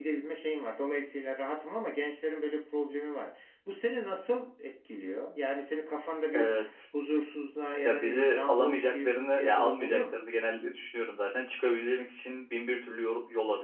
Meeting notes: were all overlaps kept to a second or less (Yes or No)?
No